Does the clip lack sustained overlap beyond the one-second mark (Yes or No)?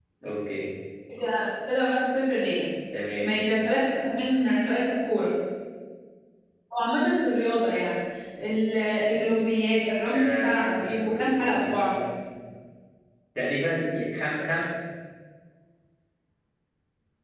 No